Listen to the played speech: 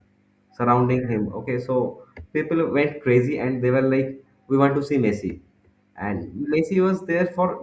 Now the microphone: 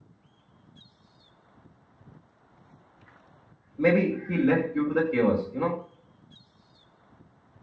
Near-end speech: present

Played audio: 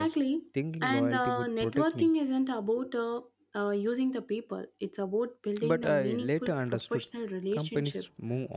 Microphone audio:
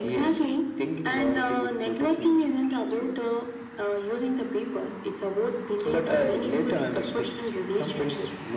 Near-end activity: none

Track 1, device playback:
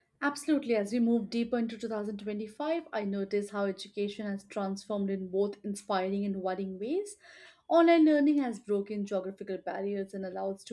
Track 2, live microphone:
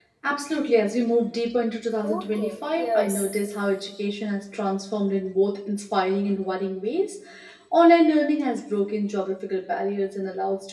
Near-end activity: present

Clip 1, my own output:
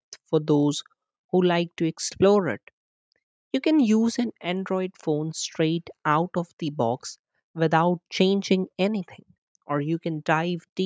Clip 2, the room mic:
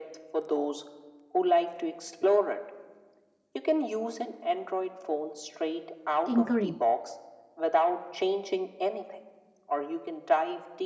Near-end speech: present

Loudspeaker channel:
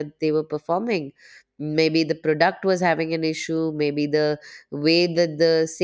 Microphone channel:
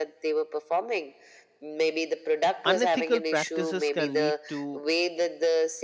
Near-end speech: present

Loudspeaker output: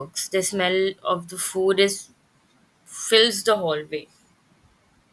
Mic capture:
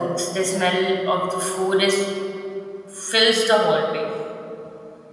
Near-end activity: none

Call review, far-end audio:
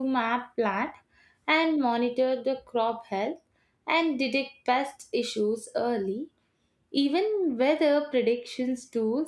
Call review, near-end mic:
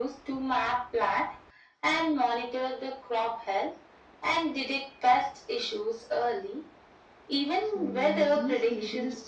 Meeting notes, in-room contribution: present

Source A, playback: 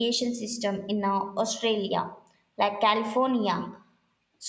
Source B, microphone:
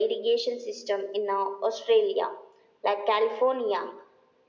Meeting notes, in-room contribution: none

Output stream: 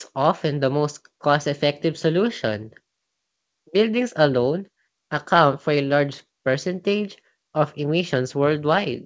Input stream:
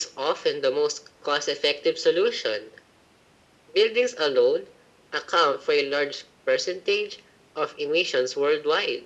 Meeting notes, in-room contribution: none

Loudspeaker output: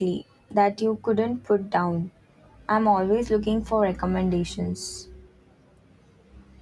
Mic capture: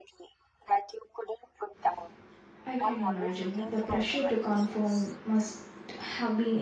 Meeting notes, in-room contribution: present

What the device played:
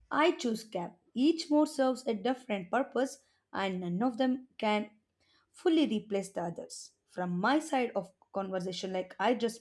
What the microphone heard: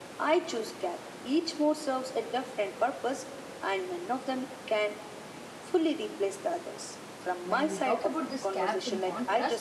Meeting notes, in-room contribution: present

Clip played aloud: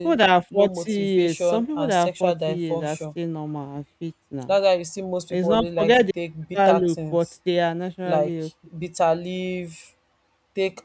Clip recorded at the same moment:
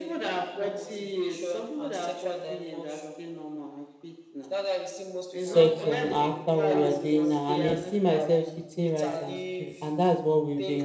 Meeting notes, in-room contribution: present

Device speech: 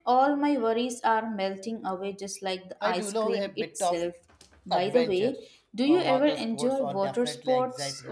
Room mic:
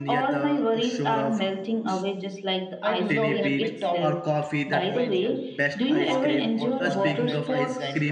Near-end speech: present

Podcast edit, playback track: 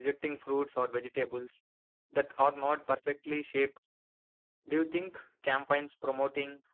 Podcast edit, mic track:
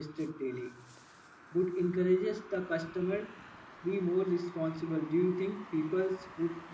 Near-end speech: present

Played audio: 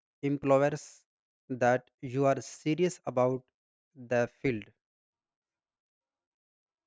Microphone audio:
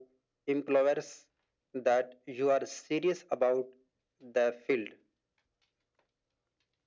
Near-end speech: none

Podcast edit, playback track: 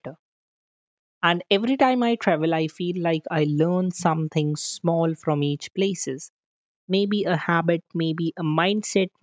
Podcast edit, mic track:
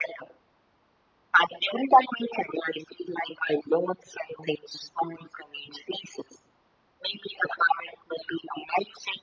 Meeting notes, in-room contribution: none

